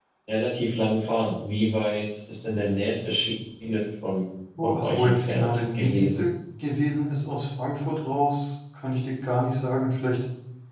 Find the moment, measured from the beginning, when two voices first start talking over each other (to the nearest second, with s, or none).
5 s